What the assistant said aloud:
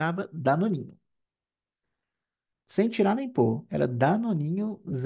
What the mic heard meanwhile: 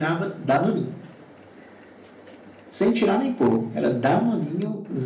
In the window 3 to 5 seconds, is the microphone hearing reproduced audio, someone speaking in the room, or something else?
echo only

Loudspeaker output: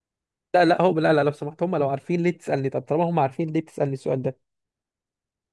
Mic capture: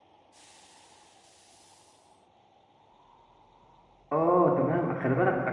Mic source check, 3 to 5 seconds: user only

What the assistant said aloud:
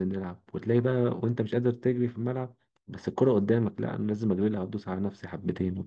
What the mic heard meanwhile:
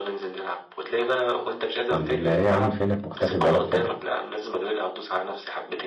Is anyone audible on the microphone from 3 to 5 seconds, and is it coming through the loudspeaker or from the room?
both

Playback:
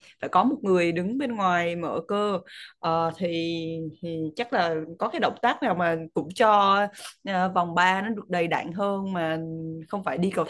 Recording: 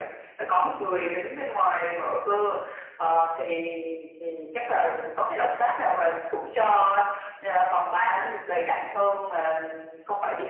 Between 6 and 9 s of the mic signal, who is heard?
echo only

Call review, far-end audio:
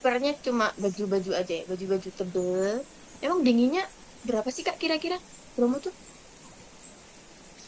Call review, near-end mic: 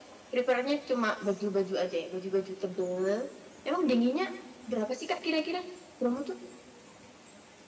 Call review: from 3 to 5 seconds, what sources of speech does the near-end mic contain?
echo only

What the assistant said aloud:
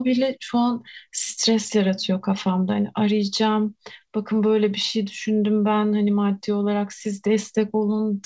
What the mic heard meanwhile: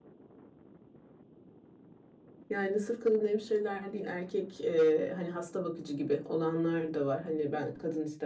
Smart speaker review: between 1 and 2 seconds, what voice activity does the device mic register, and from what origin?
neither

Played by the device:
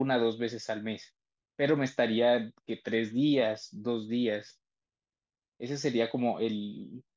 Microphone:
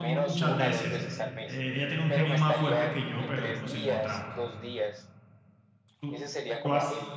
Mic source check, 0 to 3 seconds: both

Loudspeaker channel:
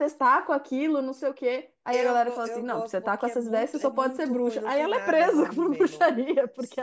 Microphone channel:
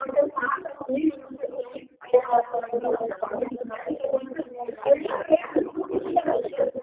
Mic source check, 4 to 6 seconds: echo only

